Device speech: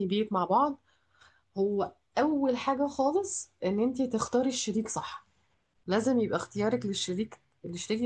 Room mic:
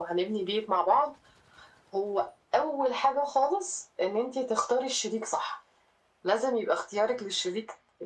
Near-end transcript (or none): none